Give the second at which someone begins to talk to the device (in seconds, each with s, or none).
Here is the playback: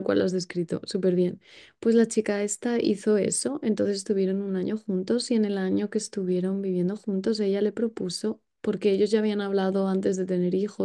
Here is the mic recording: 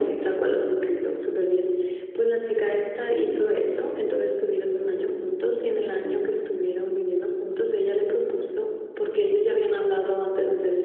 none